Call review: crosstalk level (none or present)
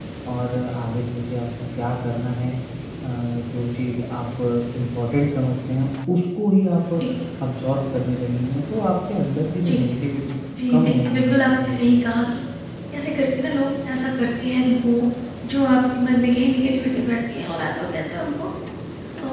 present